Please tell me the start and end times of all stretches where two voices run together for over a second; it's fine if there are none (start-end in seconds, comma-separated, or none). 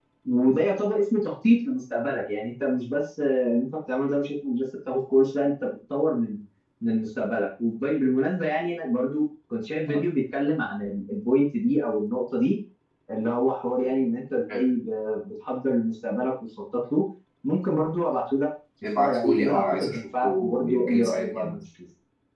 19.0-21.6